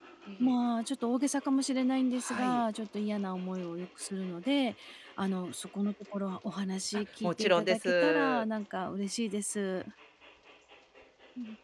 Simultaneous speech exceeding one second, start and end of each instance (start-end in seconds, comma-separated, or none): 7.2-8.4